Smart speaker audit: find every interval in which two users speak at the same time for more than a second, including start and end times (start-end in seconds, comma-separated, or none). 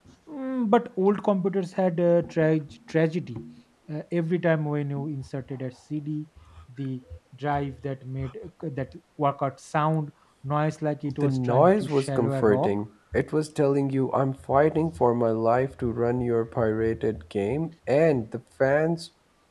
11.2-12.8